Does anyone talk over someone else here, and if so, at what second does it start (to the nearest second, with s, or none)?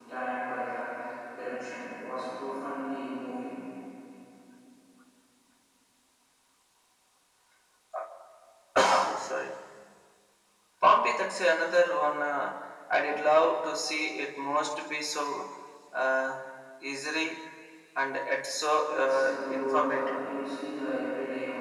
19 s